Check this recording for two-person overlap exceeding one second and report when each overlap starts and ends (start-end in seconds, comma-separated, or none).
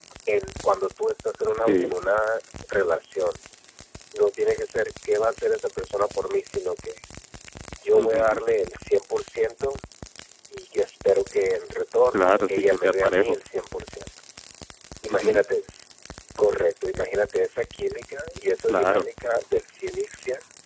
12.1-13.4